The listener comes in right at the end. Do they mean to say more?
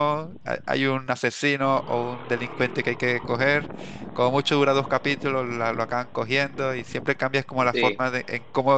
No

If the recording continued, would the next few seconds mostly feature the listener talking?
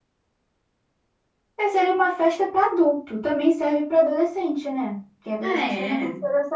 No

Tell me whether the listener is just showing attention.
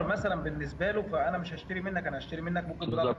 No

